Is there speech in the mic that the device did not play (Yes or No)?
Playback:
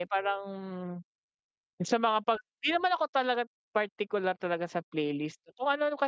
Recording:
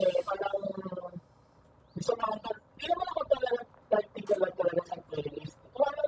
No